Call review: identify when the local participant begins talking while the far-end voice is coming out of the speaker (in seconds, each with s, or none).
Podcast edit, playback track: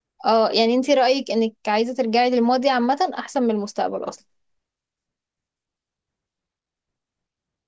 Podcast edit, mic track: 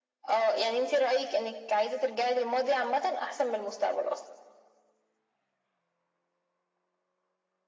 none